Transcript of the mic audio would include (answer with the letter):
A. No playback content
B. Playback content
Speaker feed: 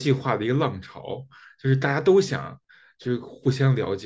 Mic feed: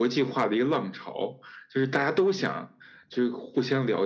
B